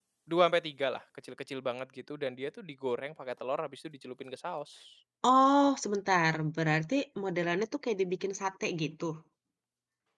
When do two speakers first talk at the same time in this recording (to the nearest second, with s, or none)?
none